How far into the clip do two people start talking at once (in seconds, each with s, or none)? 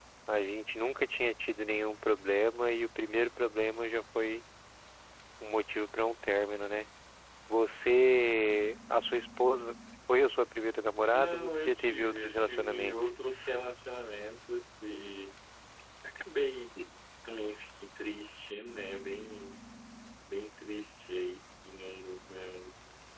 11.1 s